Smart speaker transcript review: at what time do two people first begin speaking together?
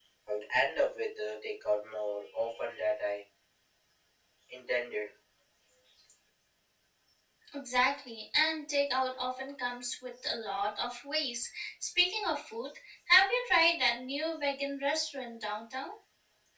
none

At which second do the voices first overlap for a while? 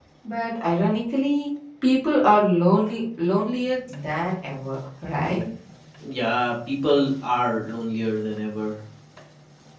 none

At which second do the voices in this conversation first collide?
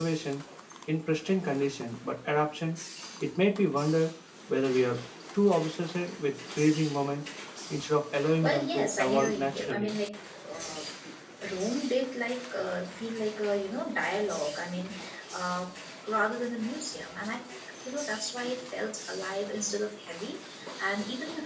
8.4 s

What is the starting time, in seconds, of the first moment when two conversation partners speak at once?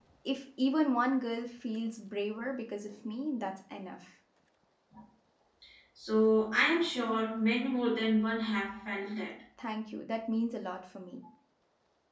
none

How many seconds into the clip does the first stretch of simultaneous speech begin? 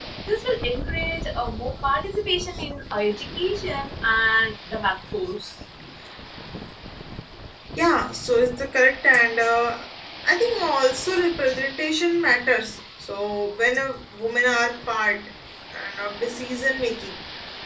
none

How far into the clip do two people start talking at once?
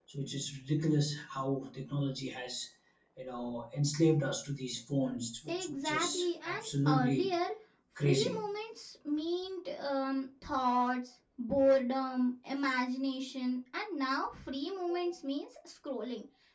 5.5 s

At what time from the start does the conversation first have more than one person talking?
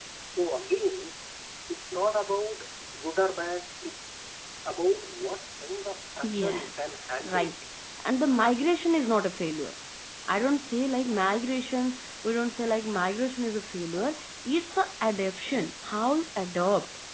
6.2 s

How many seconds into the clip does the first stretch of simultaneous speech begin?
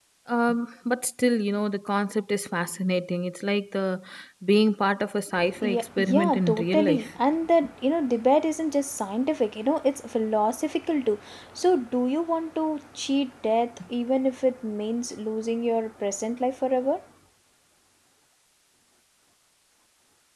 5.4 s

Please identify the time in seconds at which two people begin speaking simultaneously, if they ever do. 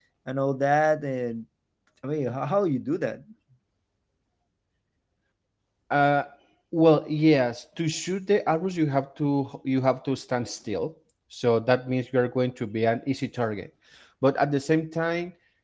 none

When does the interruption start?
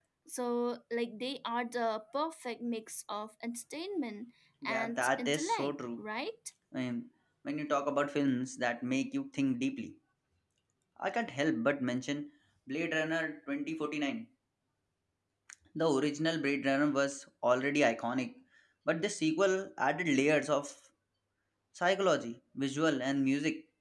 4.6 s

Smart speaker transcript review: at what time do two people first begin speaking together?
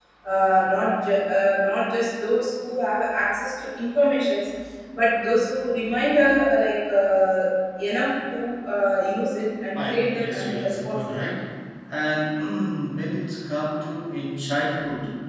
9.8 s

